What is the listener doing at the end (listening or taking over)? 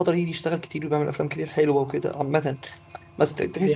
listening